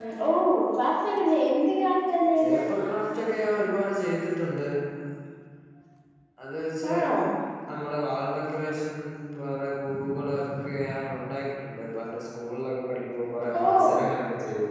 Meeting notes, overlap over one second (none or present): none